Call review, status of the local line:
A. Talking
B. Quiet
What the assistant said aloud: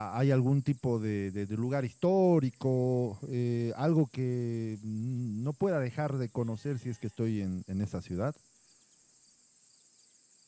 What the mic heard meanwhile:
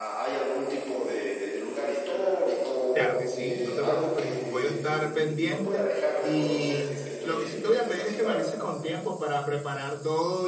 A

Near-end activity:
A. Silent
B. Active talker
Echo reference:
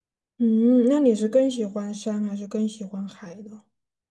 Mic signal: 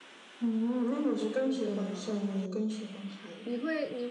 B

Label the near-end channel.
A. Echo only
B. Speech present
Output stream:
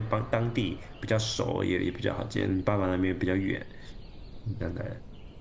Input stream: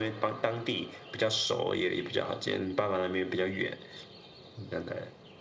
A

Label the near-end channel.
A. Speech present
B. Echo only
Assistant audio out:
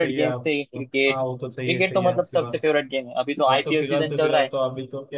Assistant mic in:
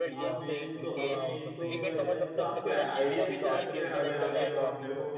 A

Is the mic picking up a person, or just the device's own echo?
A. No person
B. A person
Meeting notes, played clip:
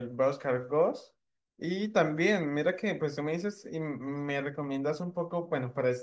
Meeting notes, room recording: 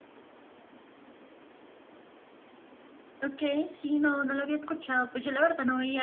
B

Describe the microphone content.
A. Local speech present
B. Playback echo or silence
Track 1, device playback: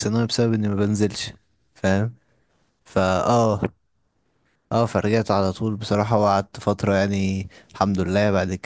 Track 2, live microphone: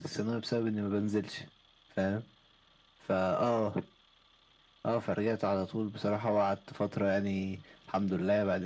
B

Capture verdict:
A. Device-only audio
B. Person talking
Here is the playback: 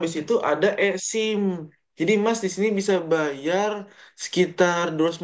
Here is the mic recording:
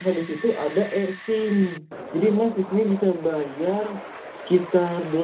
A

